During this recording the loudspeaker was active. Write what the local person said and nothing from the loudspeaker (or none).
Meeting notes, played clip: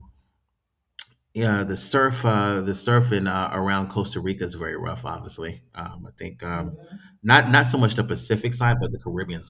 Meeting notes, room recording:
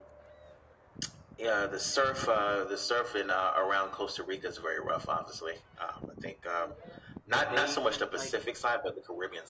but they went like